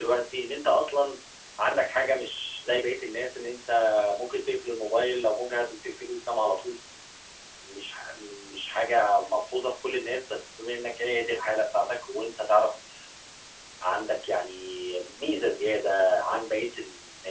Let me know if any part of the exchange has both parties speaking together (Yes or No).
No